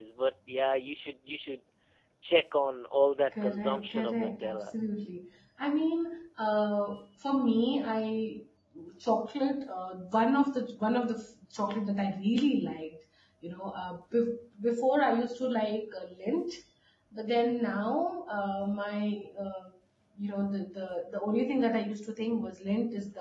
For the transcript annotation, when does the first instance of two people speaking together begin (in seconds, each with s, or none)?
3.3 s